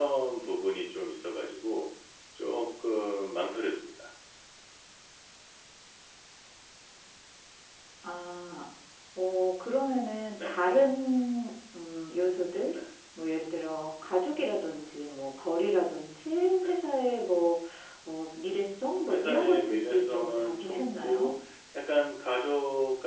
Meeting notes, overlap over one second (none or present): present